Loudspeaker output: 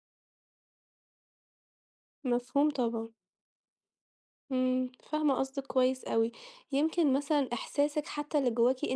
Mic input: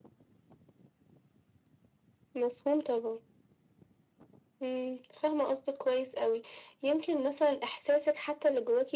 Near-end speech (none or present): none